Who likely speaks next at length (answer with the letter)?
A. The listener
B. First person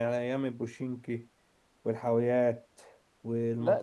A